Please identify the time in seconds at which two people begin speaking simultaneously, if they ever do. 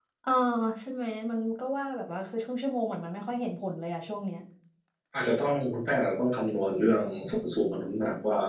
none

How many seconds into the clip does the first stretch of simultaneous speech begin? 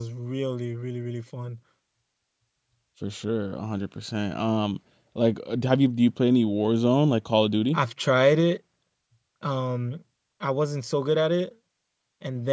none

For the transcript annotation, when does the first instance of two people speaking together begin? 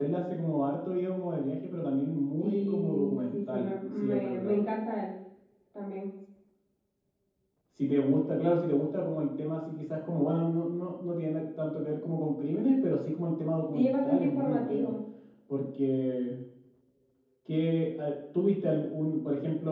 2.4 s

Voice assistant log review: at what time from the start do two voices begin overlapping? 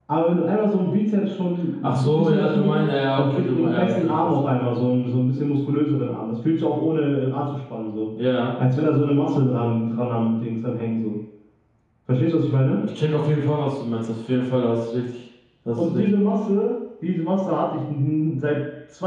1.8 s

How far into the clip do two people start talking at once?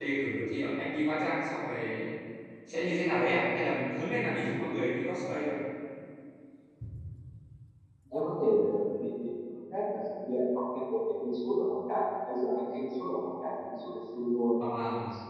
none

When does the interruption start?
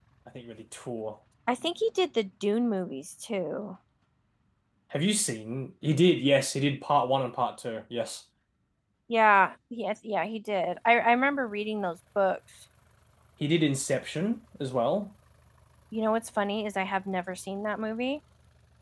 none

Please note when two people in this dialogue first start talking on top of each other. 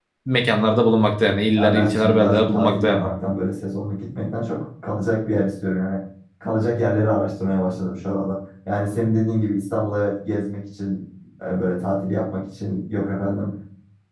1.6 s

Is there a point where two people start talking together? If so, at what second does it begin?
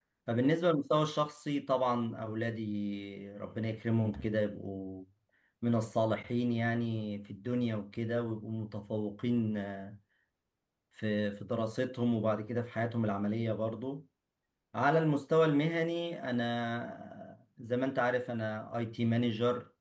none

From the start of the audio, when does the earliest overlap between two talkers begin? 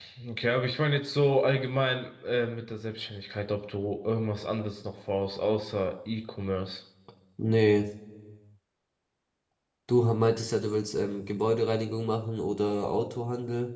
none

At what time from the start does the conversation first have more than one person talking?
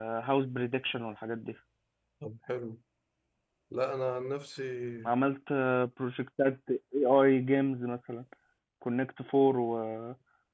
none

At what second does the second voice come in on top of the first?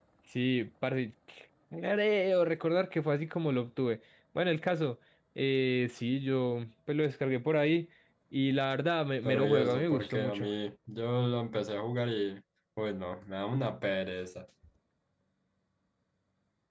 9.2 s

